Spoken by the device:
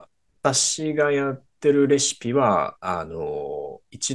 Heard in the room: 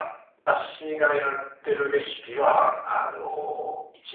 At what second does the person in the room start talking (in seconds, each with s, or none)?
none